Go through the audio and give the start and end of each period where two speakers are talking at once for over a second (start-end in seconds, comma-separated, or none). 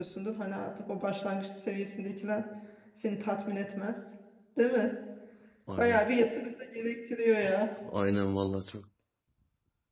none